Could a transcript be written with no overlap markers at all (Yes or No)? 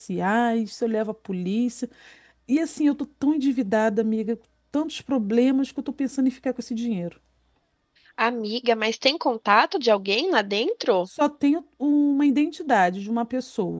Yes